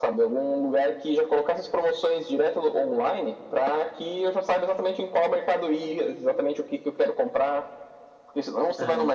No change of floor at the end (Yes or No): Yes